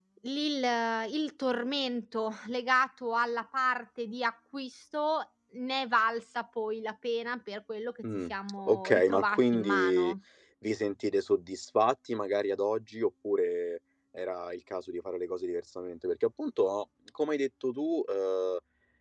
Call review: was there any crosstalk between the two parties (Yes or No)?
Yes